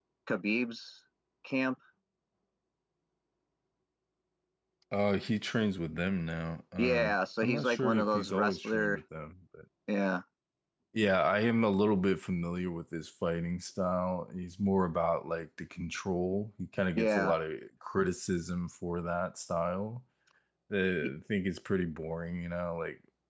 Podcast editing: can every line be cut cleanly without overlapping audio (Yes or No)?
No